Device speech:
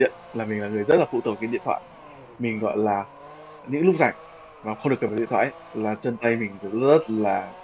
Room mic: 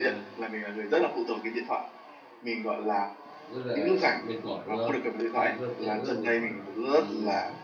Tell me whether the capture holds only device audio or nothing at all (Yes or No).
No